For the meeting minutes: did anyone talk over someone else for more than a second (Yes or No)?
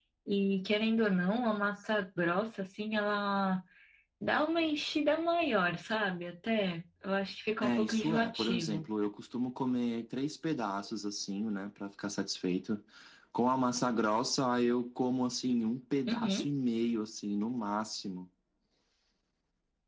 Yes